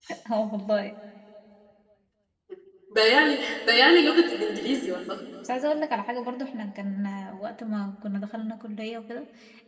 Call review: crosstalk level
none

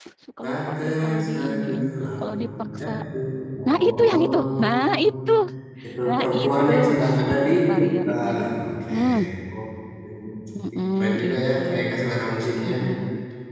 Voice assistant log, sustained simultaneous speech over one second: present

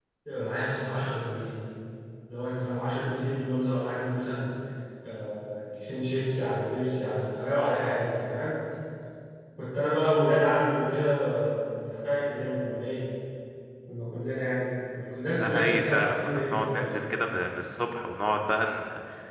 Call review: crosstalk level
present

